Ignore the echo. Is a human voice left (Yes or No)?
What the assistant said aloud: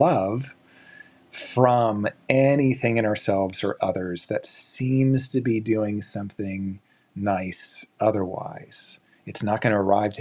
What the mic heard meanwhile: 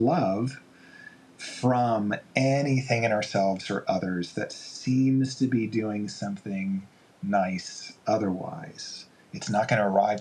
No